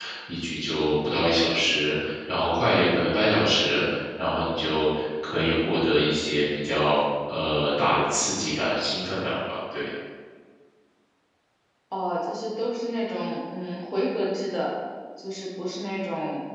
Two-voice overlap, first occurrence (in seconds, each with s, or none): none